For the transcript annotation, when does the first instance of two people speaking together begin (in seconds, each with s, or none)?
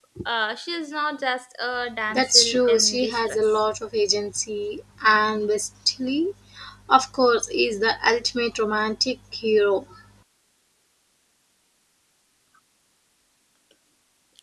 2.1 s